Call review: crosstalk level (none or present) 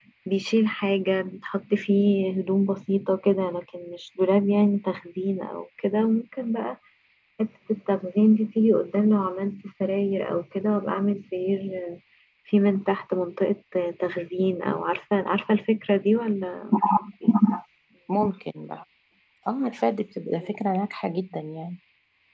none